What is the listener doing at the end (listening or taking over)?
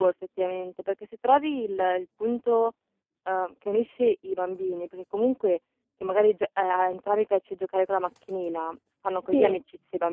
listening